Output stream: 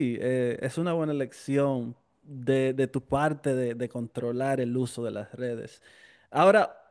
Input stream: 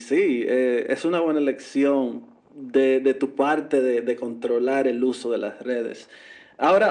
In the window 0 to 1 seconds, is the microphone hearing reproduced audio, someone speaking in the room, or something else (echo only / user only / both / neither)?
echo only